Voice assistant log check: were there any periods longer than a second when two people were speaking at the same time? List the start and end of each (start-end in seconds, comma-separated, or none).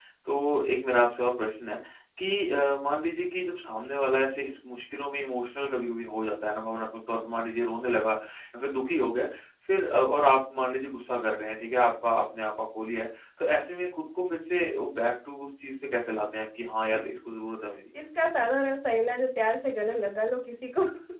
none